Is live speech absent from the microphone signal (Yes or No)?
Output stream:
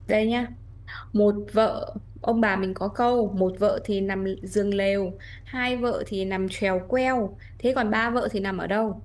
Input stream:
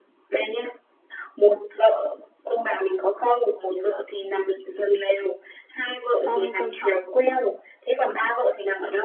No